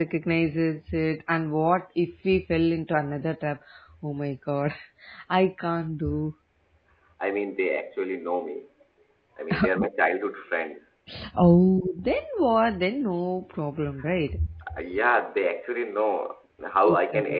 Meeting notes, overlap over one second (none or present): none